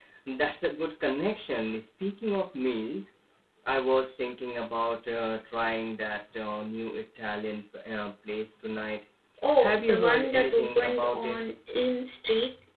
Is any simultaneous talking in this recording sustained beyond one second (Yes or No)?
Yes